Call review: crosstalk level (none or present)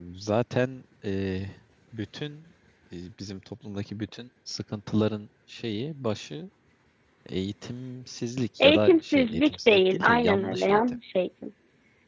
present